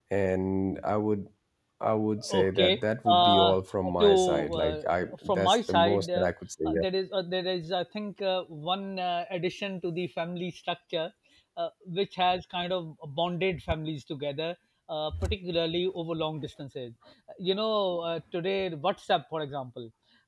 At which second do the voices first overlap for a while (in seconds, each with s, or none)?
2.3 s